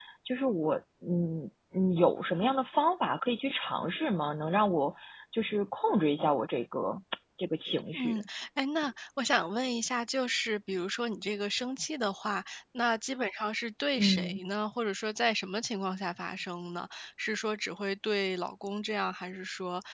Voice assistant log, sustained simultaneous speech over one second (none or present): none